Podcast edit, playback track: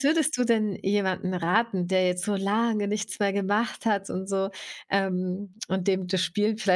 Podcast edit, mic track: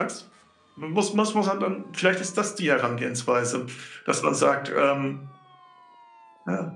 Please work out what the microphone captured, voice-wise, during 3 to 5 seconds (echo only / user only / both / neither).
user only